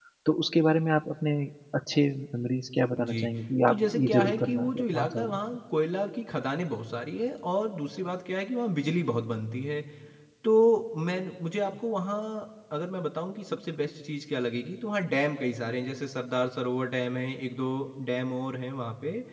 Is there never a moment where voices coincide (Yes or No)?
No